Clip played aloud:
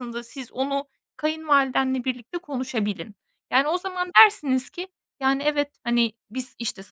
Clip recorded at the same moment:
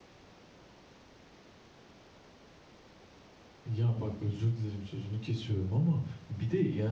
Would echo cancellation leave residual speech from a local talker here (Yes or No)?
Yes